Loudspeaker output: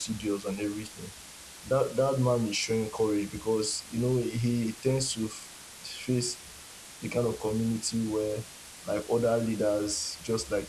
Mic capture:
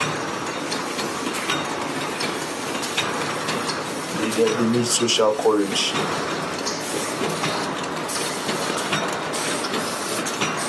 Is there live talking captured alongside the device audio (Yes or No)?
Yes